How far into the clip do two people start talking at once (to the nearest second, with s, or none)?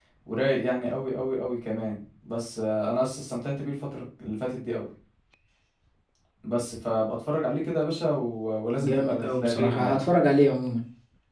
9 s